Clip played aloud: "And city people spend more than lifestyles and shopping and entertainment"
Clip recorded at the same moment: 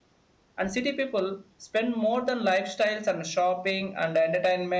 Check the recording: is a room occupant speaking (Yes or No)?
No